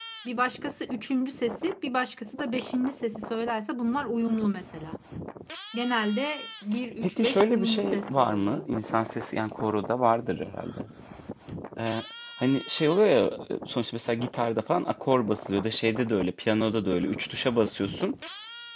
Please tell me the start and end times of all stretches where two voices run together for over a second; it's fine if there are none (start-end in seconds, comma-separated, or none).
7.0-8.6